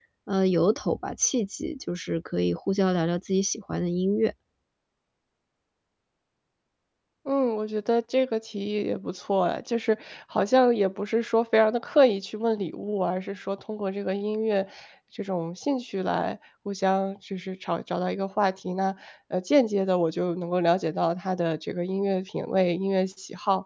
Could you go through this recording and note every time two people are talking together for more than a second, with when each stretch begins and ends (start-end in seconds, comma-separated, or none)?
none